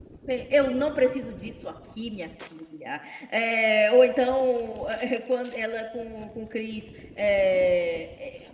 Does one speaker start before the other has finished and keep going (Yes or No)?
No